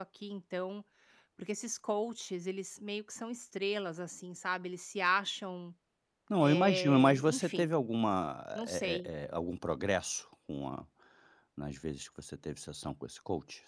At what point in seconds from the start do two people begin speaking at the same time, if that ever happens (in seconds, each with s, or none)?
6.4 s